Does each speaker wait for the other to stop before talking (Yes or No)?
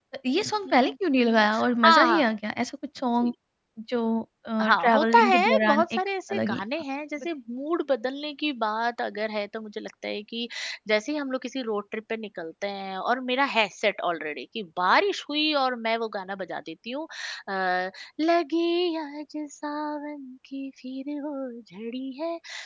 No